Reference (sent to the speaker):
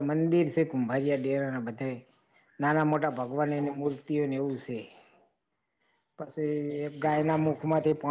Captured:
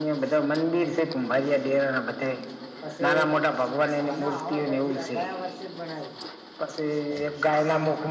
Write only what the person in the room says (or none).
પછી ના હવે પછી ગયા વર્ષેજ બનાયું.